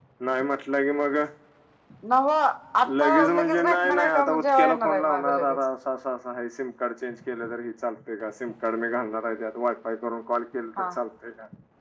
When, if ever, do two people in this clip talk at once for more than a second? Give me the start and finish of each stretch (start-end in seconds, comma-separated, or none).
3.0-5.3